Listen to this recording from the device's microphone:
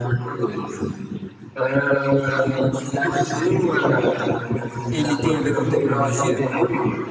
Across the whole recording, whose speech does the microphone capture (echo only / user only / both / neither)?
both